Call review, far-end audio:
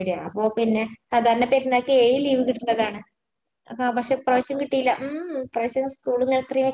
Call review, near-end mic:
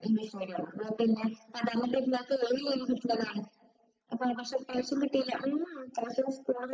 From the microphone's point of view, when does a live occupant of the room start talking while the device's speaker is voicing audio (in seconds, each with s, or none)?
none